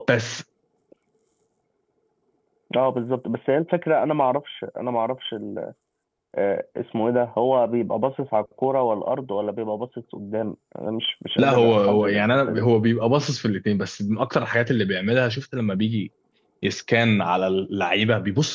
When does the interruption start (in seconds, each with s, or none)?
11.4 s